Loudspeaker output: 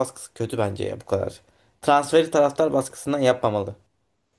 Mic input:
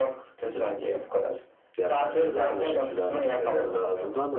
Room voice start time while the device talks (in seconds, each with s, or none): 1.8 s